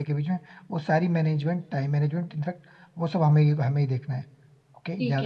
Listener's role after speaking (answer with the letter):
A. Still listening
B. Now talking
B